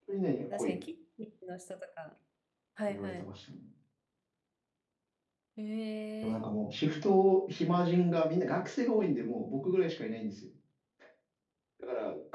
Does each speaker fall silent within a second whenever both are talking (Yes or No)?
Yes